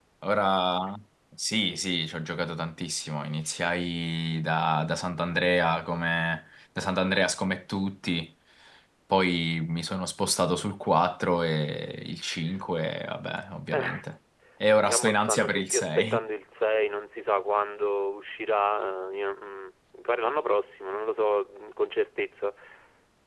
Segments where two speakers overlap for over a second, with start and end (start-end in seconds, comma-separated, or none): 14.8-16.2